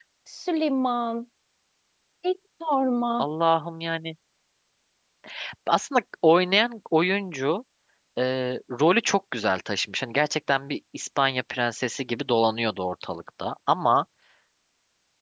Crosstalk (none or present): none